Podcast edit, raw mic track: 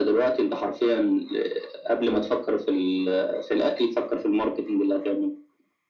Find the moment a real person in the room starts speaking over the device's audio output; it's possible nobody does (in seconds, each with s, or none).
none